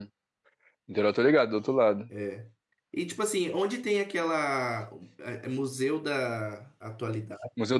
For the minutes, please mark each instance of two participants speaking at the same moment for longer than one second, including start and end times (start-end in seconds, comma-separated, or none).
none